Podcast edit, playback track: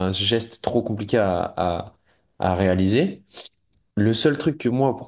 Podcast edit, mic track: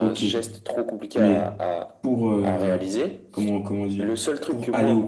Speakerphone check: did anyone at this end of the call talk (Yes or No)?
Yes